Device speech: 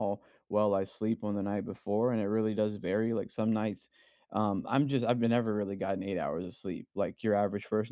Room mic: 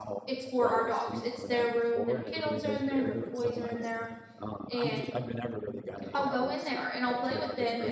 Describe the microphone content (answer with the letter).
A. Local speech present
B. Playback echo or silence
A